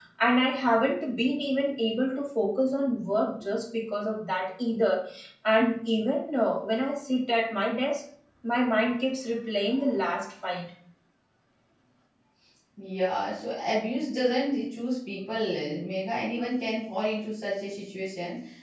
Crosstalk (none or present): none